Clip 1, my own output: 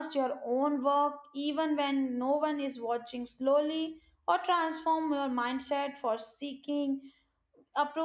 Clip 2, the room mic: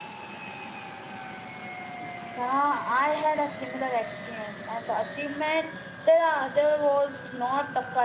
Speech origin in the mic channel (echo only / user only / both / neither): user only